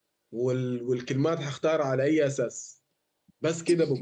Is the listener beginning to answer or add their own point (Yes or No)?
No